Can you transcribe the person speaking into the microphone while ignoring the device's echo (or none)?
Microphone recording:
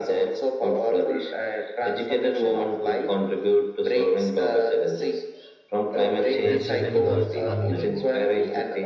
that prevent girls from learning.